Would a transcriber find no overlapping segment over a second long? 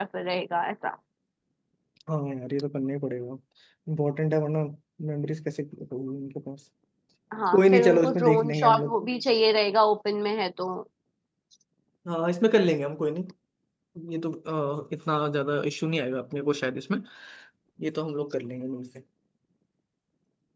No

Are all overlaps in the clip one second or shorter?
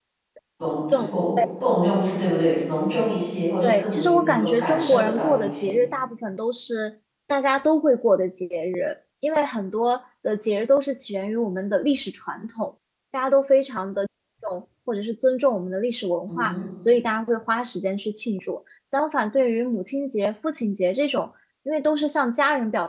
No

